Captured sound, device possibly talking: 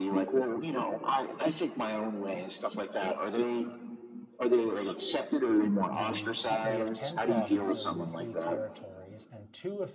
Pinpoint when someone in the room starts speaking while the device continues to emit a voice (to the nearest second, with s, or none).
6 s